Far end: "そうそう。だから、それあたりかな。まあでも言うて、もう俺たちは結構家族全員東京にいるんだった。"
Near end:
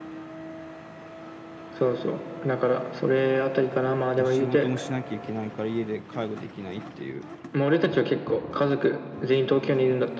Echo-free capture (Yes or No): No